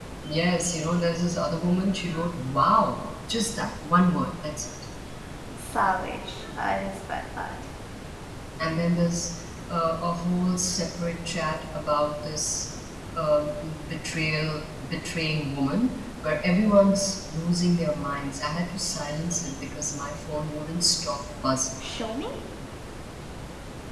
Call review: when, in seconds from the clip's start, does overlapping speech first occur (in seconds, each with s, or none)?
none